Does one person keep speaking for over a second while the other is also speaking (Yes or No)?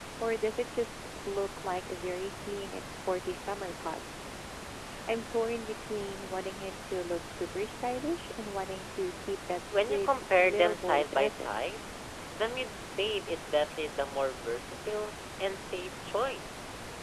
Yes